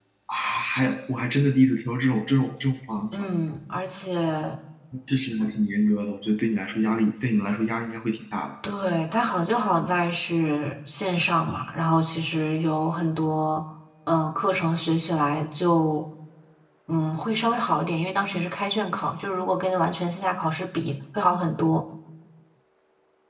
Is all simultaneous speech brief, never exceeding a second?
Yes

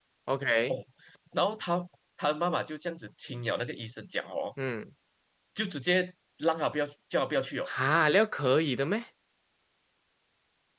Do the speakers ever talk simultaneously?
No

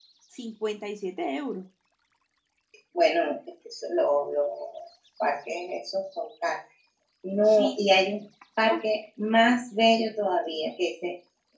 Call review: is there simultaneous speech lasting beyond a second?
No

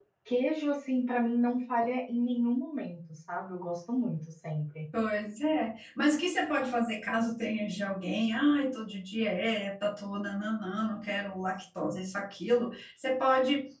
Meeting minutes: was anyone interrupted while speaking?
No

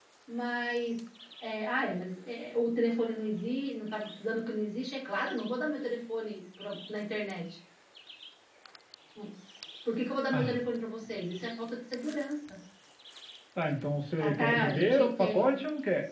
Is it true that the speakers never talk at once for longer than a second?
No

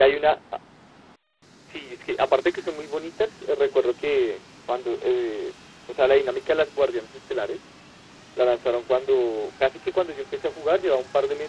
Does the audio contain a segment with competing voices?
No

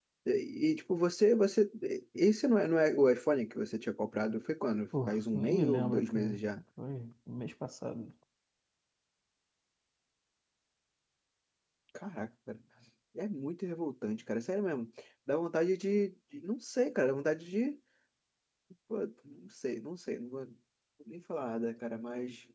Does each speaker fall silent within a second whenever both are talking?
No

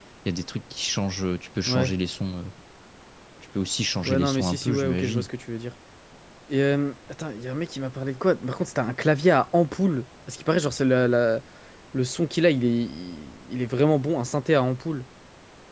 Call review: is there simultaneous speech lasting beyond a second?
Yes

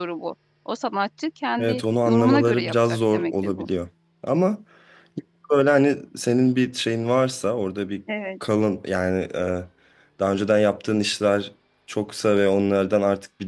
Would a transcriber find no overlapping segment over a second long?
No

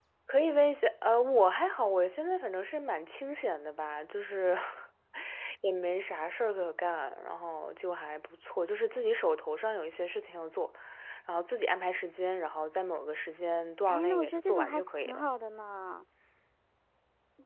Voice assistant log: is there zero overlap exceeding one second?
No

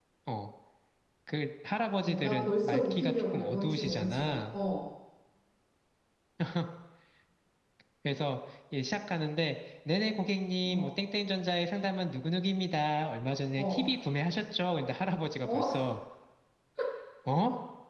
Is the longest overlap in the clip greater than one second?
Yes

